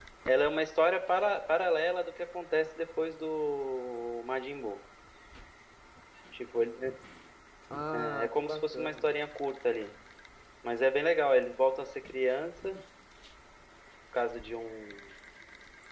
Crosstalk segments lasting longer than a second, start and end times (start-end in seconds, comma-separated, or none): 7.9-9.1